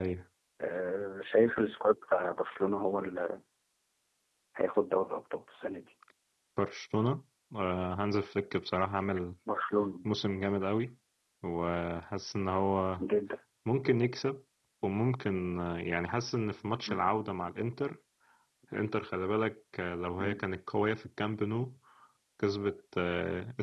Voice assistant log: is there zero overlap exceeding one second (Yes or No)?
Yes